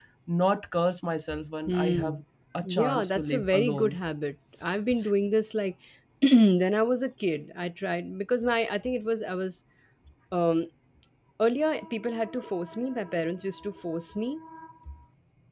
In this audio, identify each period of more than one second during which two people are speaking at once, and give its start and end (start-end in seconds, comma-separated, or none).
2.6-4.0